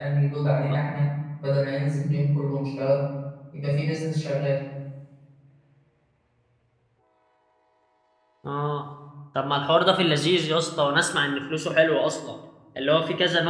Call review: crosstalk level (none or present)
none